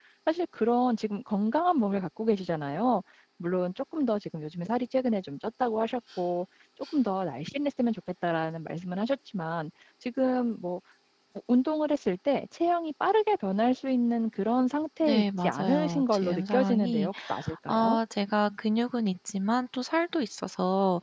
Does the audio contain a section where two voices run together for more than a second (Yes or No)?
Yes